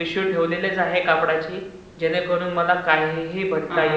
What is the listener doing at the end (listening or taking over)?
taking over